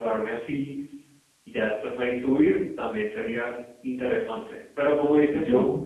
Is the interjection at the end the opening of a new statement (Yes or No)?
No